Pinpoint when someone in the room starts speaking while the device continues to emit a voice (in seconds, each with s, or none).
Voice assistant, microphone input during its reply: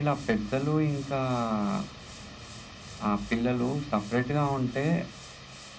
none